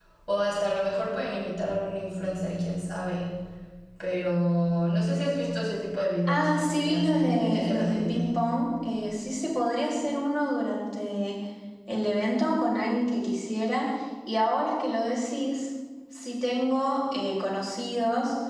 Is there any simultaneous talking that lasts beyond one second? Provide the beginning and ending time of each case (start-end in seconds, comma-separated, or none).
6.3-8.4